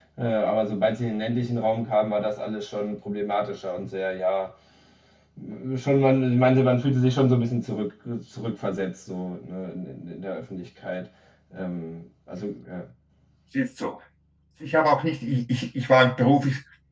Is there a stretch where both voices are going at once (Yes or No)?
No